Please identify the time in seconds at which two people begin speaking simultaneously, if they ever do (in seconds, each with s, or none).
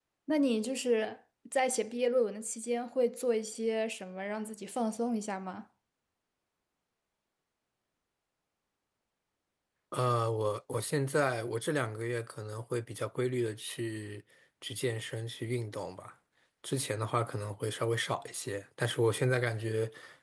none